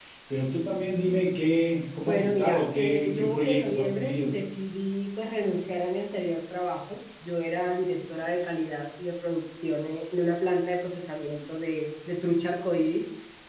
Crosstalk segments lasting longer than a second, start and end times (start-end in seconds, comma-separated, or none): 2.0-4.3